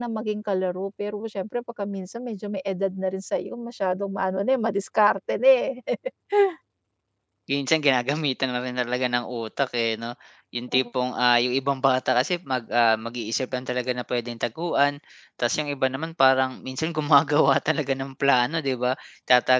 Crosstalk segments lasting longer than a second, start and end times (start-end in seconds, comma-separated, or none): none